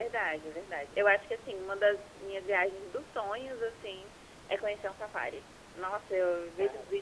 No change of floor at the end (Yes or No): Yes